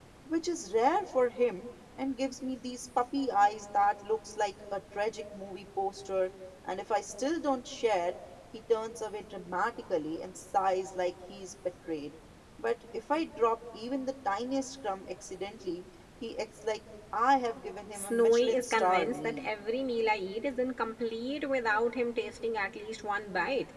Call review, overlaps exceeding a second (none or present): present